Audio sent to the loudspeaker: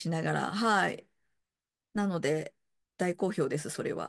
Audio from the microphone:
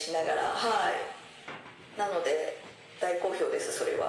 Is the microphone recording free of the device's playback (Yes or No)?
No